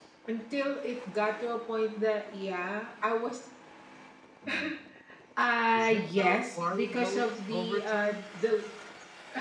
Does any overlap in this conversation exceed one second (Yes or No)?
Yes